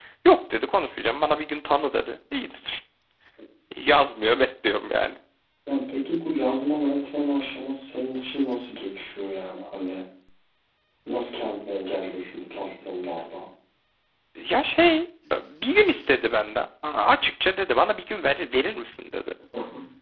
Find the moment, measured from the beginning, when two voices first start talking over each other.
none

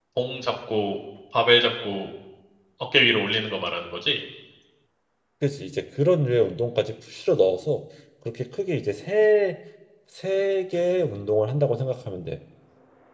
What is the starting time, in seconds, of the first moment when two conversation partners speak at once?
none

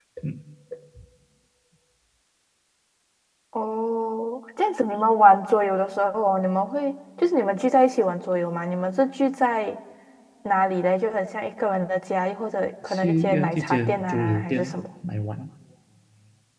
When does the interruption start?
12.9 s

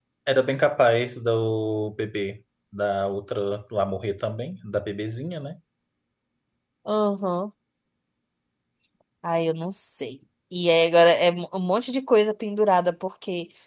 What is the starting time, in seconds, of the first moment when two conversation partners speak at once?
none

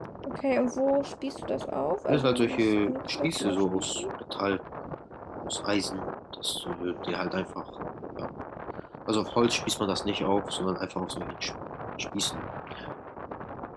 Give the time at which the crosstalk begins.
2.1 s

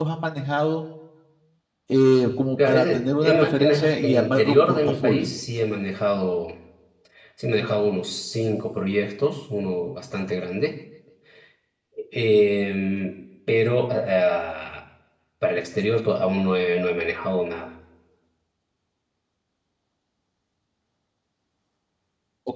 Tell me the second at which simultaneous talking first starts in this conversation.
2.6 s

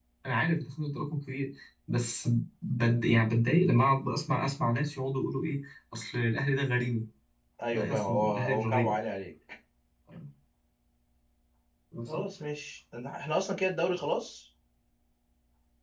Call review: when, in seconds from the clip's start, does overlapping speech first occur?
7.7 s

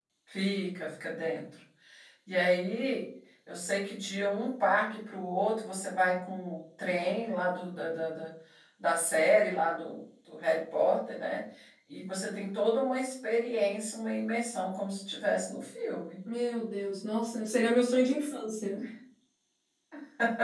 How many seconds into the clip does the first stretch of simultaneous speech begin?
none

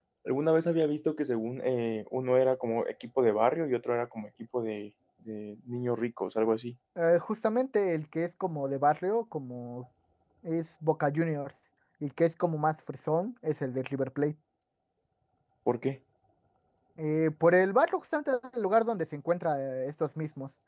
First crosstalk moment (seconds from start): none

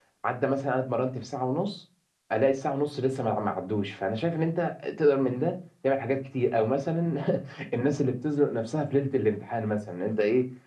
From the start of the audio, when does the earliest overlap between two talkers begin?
none

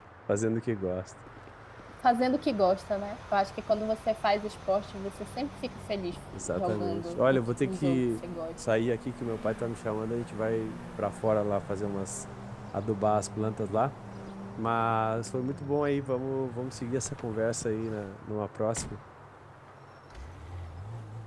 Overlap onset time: 6.3 s

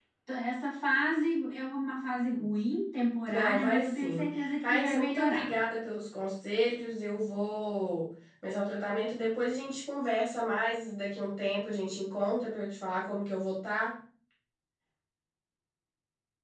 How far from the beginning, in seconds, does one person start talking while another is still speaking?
3.3 s

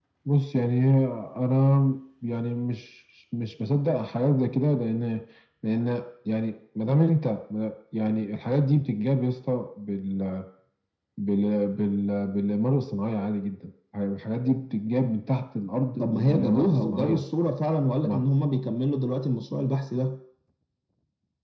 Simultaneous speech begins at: 16.0 s

